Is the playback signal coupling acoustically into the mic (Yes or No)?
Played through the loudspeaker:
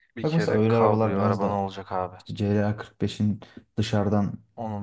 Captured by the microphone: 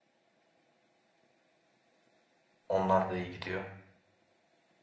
No